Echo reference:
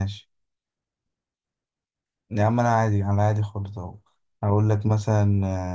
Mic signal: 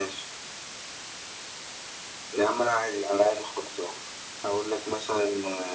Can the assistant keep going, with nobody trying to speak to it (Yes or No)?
Yes